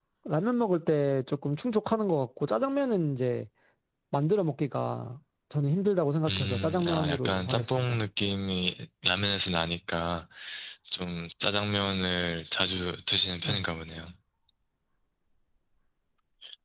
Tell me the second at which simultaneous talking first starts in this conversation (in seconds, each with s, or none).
6.2 s